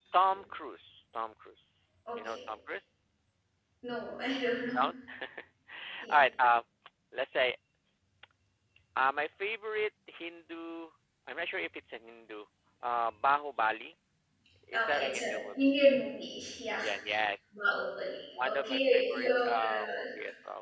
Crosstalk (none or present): present